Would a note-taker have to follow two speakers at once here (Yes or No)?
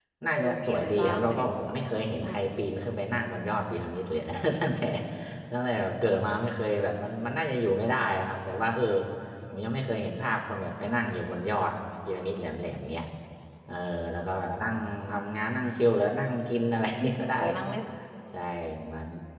Yes